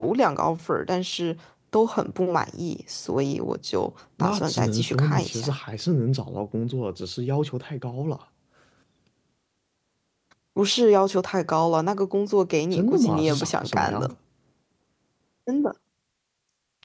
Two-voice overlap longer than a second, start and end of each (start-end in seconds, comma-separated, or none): 4.2-5.5, 12.7-14.1